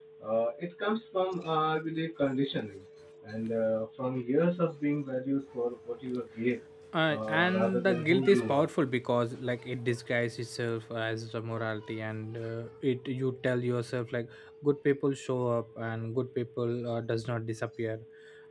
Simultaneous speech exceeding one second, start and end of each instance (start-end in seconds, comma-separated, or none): 7.1-8.7